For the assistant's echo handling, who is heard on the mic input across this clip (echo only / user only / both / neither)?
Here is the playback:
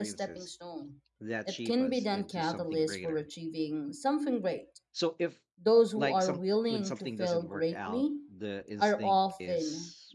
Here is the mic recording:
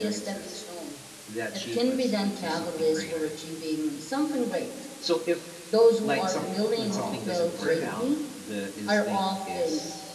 both